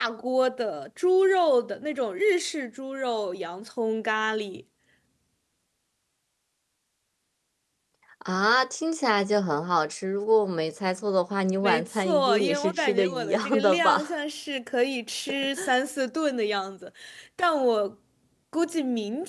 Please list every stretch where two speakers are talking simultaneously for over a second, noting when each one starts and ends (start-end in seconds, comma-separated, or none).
11.6-14.1